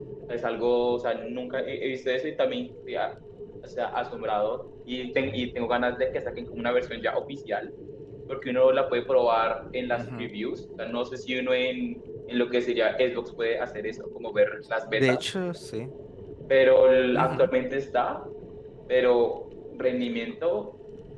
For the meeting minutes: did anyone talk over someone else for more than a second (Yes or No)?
No